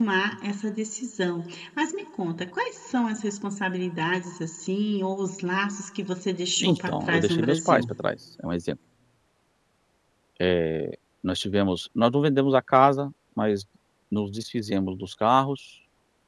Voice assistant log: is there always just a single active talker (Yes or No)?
No